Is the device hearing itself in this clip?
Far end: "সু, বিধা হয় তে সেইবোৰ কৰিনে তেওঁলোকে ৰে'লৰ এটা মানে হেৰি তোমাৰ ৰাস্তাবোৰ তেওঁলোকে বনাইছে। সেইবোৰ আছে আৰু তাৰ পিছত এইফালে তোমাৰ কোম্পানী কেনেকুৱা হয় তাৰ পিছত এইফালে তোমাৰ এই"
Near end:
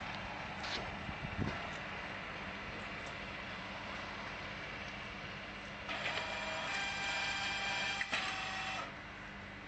No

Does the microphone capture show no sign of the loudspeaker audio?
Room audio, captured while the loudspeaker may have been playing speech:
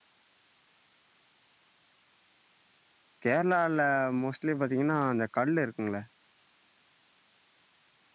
Yes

